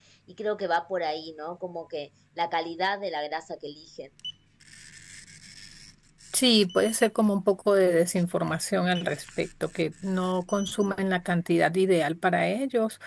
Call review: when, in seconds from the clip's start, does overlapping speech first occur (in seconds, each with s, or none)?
none